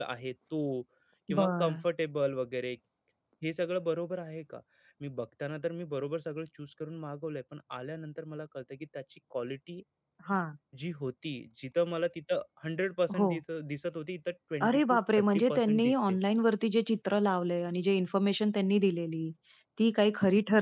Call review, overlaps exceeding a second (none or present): present